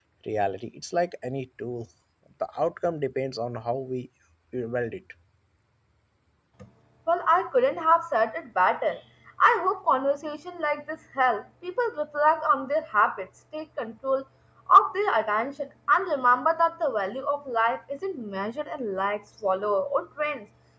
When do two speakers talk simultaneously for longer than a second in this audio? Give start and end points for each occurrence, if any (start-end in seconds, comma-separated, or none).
none